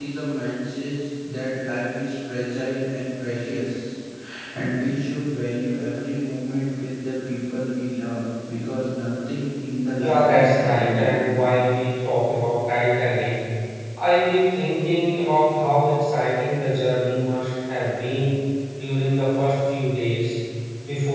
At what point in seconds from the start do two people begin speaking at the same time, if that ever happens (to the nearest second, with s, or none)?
10 s